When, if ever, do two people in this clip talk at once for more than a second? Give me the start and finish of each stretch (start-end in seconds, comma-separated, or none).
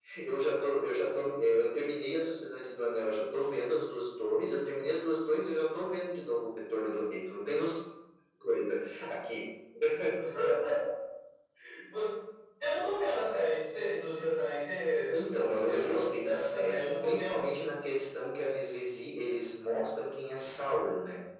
15.2-17.5